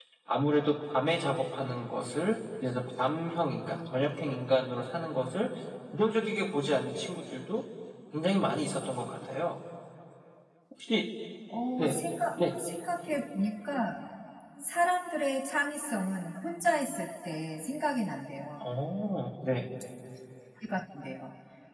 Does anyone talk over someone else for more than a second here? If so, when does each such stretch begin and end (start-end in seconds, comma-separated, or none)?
none